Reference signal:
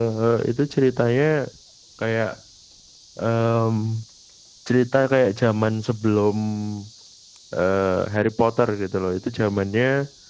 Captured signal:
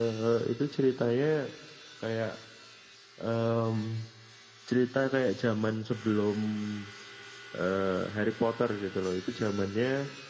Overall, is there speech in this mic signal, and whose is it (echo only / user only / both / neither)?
echo only